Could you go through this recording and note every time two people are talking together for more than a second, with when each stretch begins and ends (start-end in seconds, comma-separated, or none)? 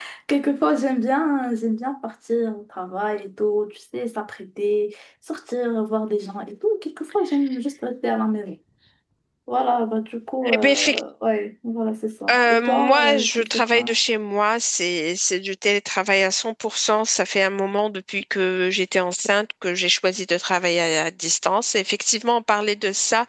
12.3-14.0